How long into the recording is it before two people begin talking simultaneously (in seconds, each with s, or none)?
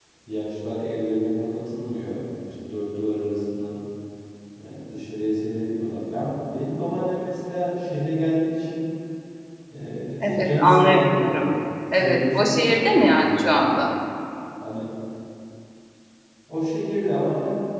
10.2 s